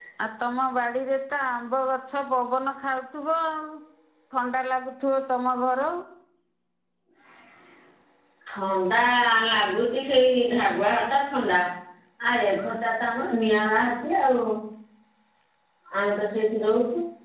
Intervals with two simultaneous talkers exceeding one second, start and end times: none

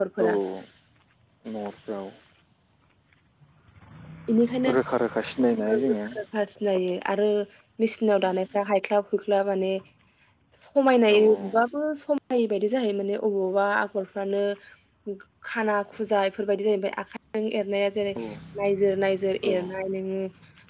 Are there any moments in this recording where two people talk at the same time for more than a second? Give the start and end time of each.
none

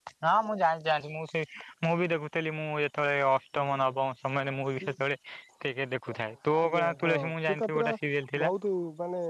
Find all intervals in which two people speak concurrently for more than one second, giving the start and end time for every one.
6.6-7.9

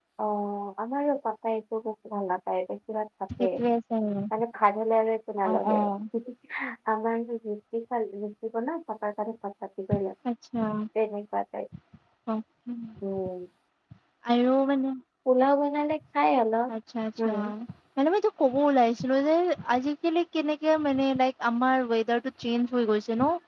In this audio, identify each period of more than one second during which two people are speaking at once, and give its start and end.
none

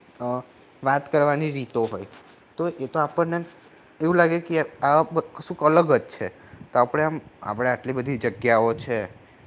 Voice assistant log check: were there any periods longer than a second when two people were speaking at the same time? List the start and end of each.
none

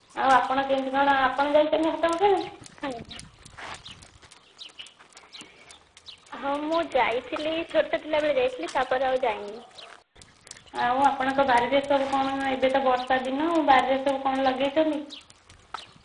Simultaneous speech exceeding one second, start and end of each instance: none

